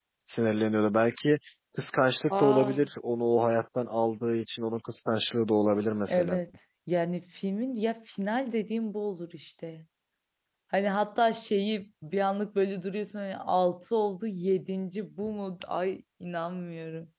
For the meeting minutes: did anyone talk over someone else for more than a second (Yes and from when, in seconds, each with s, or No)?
No